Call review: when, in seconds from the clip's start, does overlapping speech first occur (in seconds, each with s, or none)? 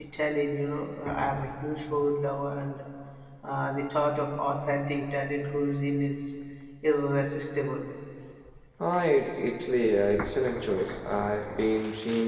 none